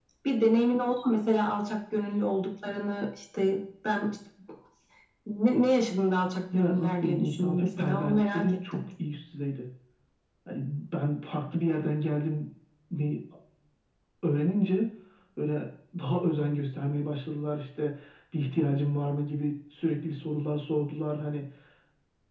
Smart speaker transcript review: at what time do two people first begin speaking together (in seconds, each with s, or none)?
6.5 s